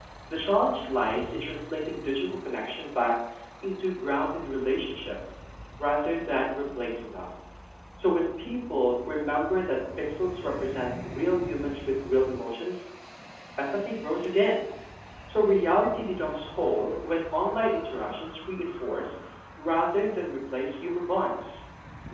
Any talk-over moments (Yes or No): No